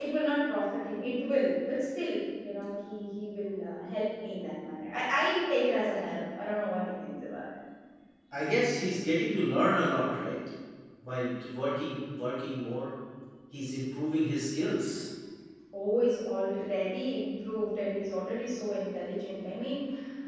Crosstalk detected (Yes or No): No